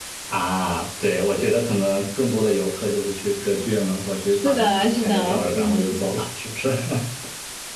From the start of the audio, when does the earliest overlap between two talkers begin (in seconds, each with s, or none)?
4.4 s